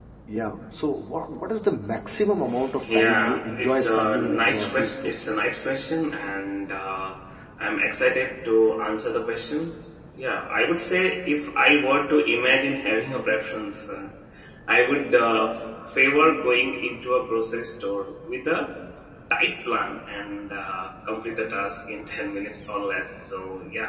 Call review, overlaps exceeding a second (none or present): present